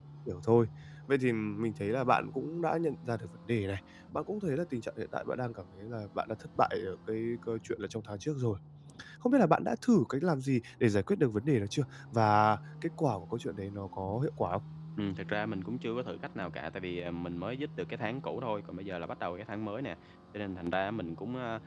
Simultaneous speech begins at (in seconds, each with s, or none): none